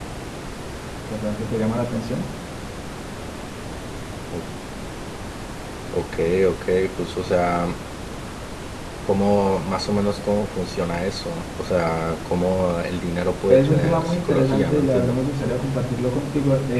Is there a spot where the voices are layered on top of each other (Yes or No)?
Yes